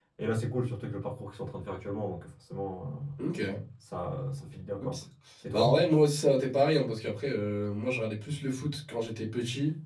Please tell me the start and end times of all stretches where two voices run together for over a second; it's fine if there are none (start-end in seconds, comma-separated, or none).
none